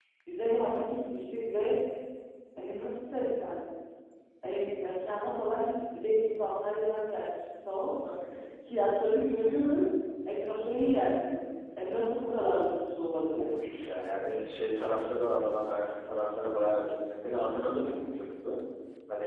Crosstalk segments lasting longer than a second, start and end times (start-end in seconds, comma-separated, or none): none